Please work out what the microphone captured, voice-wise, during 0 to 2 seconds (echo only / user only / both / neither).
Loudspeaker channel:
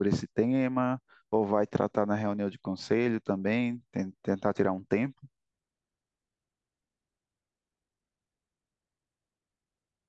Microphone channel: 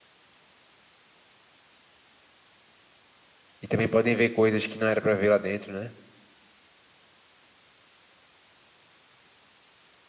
neither